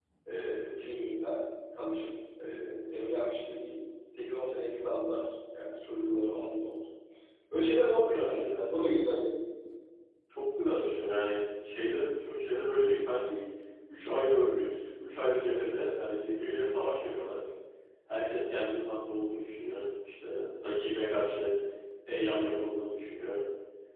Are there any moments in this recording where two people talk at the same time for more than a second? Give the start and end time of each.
7.8-9.1

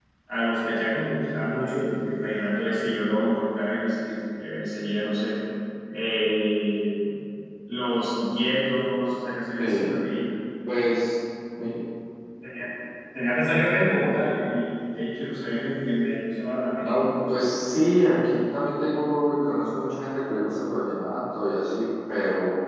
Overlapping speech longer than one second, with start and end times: none

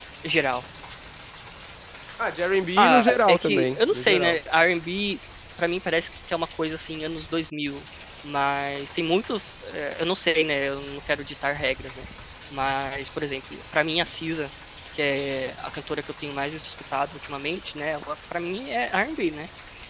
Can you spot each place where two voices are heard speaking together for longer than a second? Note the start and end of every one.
2.8-4.4

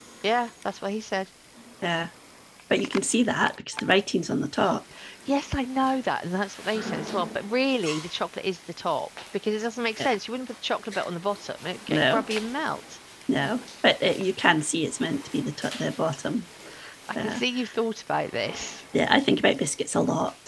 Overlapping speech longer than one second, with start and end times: none

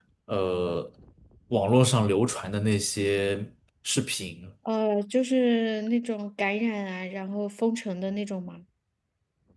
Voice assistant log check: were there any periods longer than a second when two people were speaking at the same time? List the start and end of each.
none

